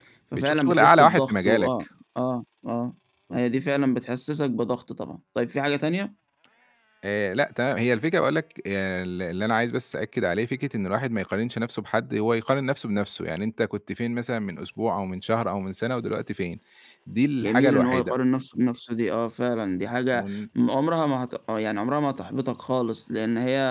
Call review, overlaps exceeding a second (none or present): present